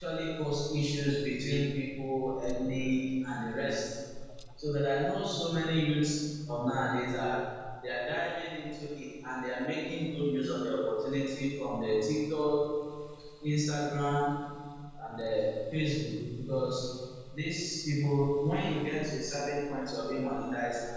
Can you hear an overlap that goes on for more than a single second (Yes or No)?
No